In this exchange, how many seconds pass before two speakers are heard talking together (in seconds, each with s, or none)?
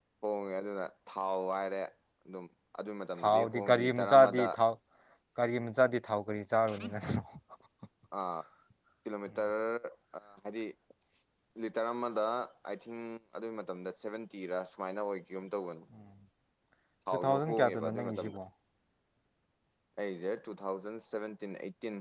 3.2 s